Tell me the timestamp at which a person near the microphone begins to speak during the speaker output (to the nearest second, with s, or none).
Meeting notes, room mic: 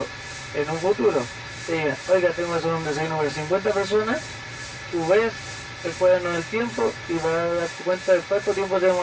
none